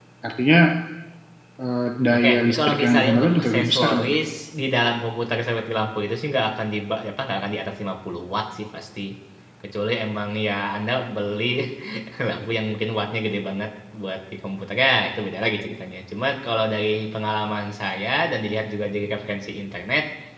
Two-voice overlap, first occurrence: 2.1 s

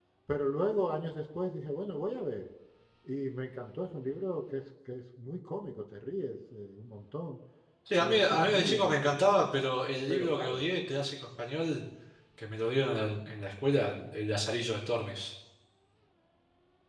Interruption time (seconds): 8.0 s

